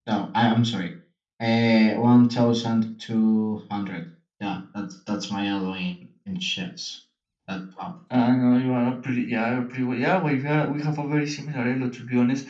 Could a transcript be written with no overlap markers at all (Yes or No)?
Yes